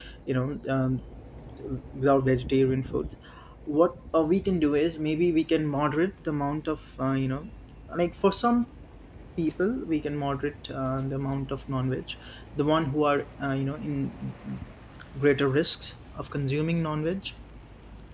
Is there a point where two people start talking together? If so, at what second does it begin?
none

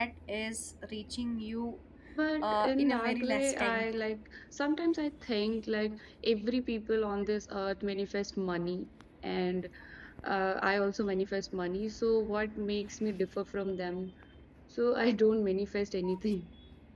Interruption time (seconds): 2.4 s

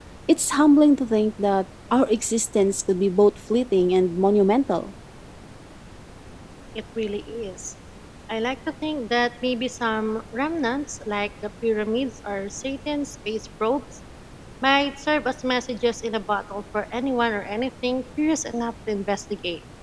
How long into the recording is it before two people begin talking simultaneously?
none

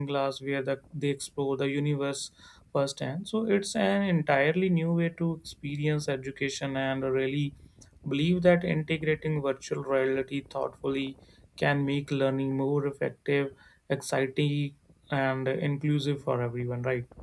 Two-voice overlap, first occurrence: none

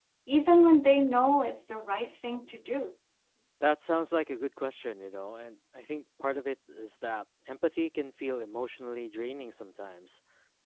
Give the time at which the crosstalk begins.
none

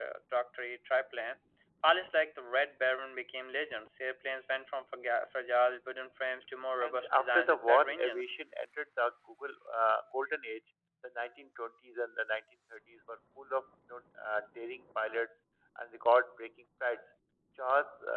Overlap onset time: 6.8 s

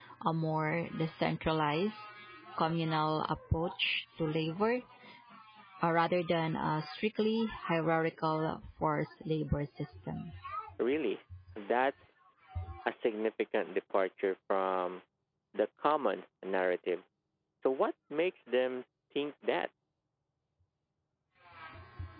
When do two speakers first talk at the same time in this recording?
none

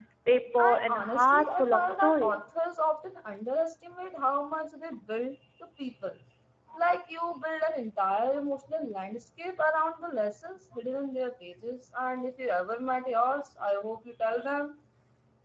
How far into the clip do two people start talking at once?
0.6 s

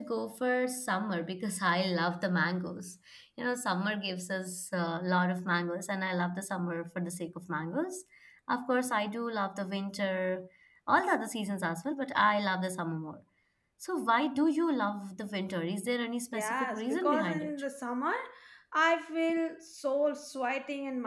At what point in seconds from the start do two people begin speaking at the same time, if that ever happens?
16.3 s

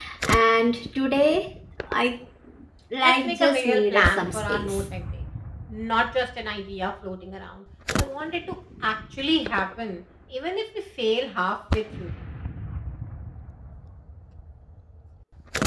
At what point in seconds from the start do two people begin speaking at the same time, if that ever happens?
3.0 s

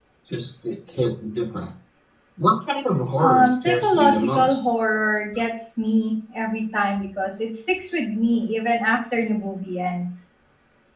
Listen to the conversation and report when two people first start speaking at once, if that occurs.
3.2 s

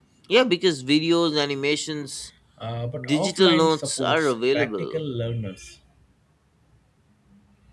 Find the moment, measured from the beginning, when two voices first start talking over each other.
3.0 s

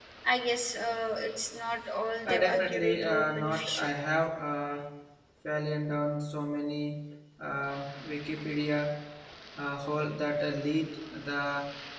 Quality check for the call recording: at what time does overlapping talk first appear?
2.2 s

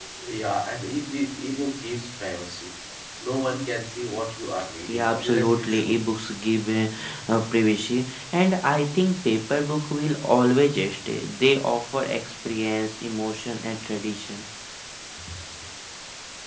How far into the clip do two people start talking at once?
4.9 s

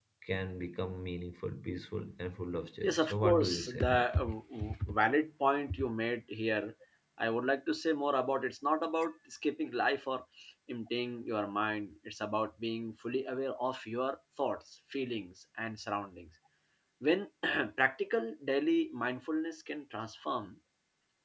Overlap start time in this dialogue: 2.8 s

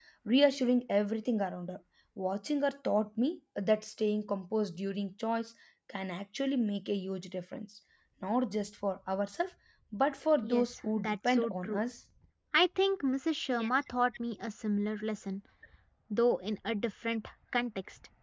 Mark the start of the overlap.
10.4 s

